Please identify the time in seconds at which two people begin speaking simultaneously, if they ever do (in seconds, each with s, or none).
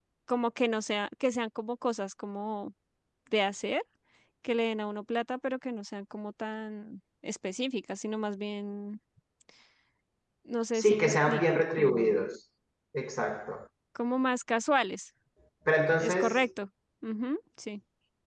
10.7 s